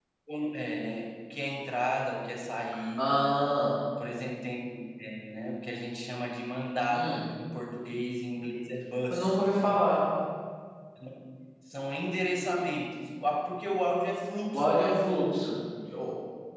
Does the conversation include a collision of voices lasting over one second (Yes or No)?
No